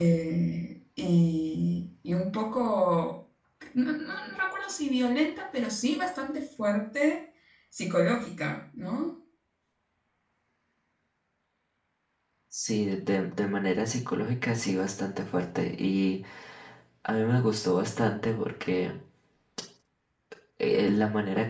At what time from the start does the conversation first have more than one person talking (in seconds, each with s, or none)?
none